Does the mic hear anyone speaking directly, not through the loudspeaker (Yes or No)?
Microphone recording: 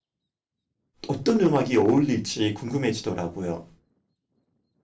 Yes